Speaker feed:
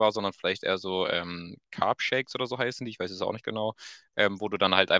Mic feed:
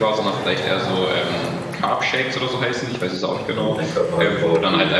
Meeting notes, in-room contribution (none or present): present